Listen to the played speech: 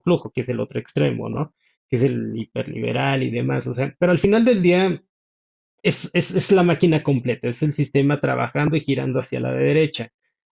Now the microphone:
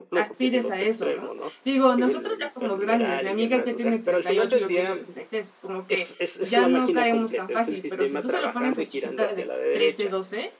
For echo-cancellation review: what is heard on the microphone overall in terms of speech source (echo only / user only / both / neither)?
both